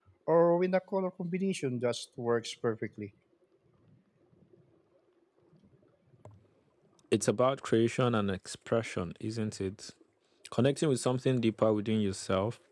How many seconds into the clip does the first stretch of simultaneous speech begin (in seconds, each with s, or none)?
none